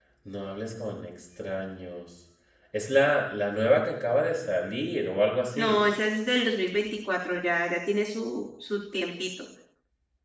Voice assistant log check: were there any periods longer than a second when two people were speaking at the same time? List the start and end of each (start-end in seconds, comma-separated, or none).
none